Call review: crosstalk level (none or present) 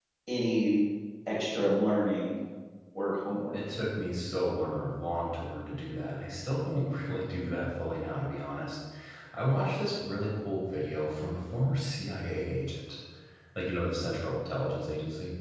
none